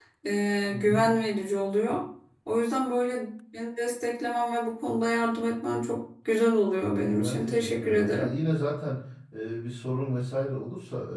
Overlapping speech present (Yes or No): Yes